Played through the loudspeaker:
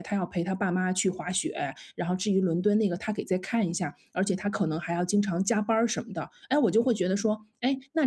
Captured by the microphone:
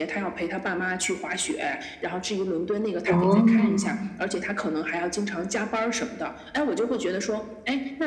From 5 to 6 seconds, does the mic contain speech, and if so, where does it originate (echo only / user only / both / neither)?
echo only